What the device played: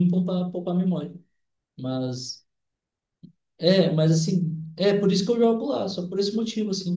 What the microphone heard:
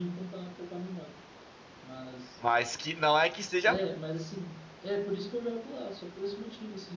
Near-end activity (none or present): present